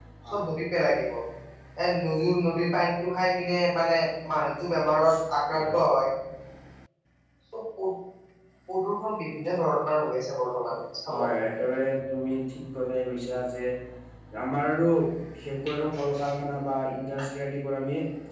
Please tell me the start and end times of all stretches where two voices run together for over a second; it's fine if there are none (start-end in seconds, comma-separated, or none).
none